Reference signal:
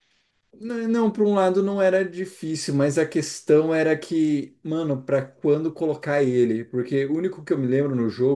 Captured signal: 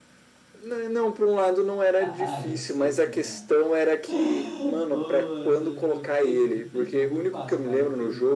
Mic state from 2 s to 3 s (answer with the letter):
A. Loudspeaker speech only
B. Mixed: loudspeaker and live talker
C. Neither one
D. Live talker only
B